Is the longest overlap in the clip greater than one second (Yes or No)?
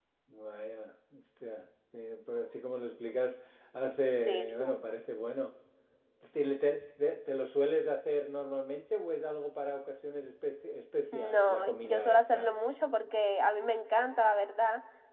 Yes